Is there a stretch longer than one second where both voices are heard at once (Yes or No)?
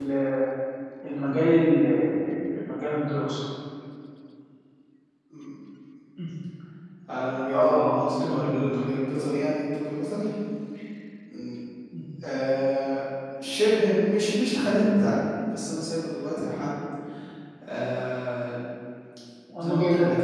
Yes